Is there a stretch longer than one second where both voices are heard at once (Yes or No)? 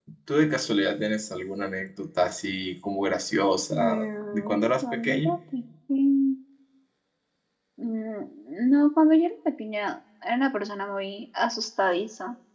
Yes